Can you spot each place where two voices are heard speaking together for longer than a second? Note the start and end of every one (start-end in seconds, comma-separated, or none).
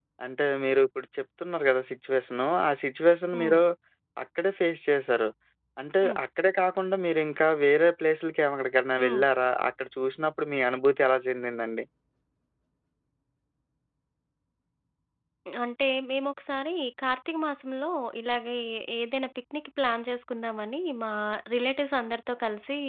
none